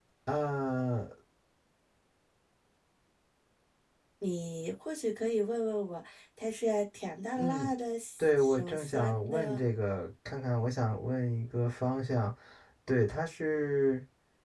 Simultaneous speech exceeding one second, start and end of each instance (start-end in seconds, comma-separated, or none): 8.4-9.6